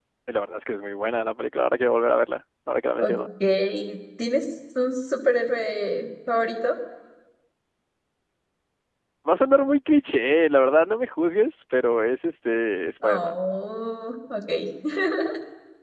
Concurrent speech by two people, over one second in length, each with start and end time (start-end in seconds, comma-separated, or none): none